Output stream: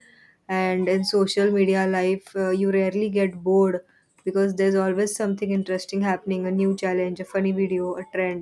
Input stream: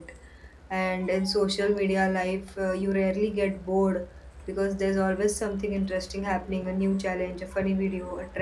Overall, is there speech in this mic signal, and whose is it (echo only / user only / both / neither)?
echo only